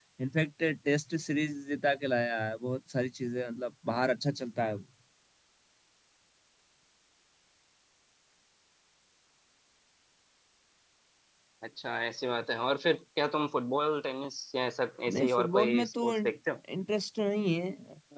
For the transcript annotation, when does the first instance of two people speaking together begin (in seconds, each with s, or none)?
15.1 s